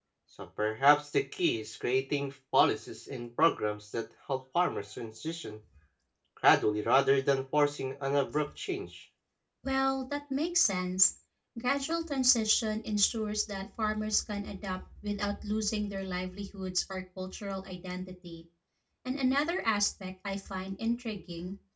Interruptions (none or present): none